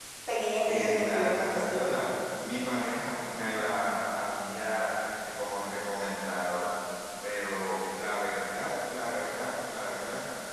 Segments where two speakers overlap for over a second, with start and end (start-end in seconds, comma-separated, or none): 0.7-2.0